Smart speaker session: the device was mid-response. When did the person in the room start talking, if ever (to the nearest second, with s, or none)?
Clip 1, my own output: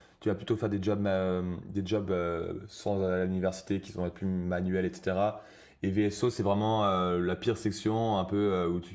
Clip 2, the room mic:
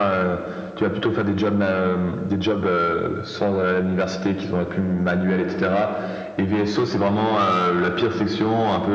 none